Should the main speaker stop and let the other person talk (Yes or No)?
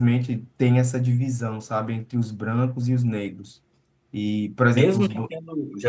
Yes